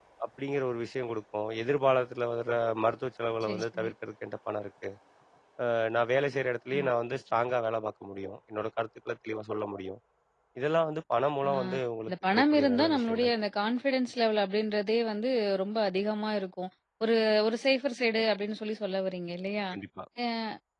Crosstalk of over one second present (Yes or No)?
Yes